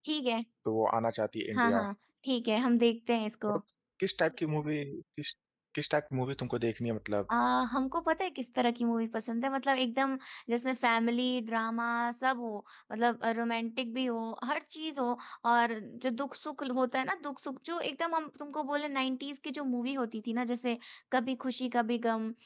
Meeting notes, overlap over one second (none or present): none